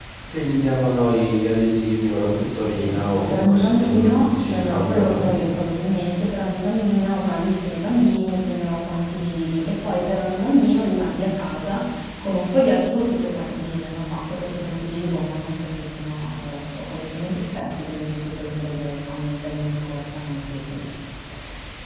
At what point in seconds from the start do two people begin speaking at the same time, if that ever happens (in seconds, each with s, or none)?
2.8 s